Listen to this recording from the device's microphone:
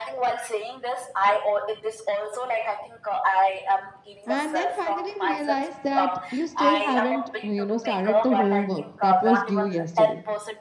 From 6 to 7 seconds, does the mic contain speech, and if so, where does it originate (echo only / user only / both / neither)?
both